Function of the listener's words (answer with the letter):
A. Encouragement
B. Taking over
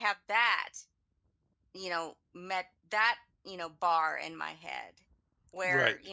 A